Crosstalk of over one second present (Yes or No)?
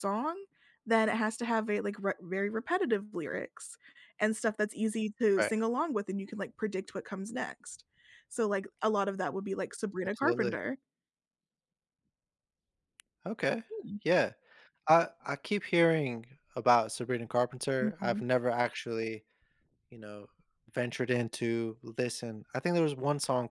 No